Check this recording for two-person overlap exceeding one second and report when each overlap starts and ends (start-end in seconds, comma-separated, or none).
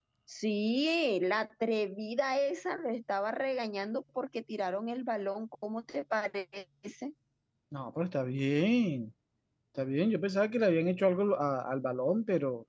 none